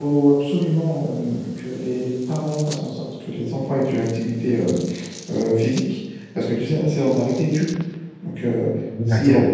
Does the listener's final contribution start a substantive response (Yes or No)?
No